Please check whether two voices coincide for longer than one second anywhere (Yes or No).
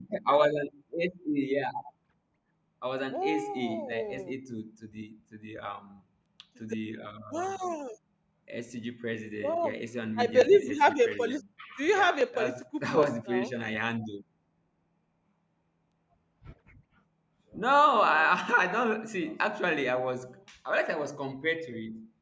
Yes